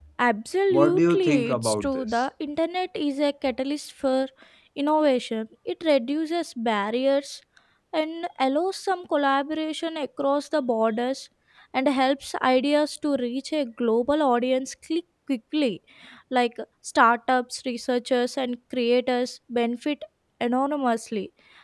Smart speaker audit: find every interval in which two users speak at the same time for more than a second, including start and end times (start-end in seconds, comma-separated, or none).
0.7-2.2